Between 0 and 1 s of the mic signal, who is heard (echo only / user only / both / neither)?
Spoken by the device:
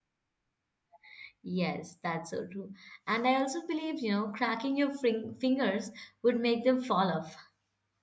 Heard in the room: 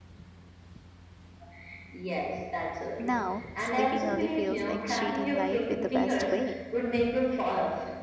neither